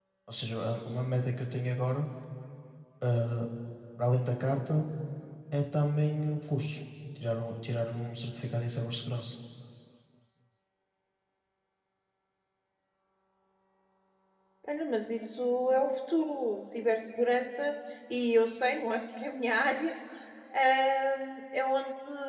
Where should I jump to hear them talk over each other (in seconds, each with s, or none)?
none